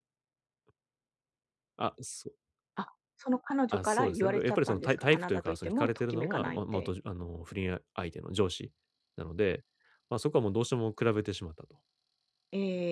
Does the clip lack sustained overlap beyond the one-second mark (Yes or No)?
No